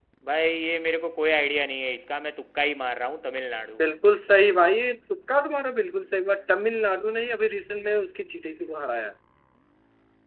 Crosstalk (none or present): none